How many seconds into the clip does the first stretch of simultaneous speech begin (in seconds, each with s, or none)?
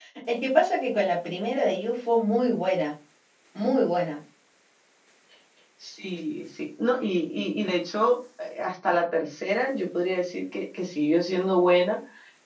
none